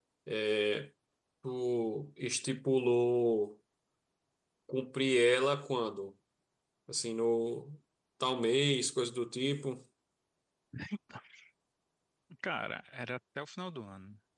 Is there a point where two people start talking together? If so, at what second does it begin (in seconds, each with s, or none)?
none